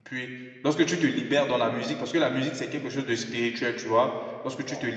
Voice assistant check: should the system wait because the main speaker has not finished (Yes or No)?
Yes